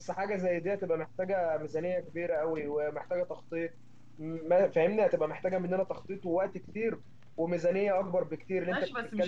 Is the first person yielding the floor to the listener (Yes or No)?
Yes